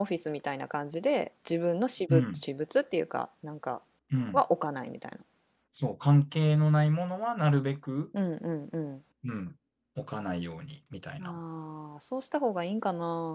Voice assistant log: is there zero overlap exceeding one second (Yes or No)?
Yes